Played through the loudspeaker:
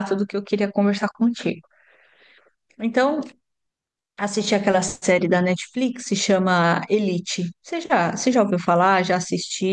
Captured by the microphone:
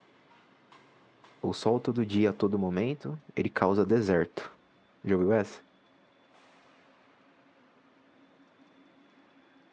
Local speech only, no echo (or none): O sol todo dia, a todo momento, ele causa deserto. Já ouviu essa?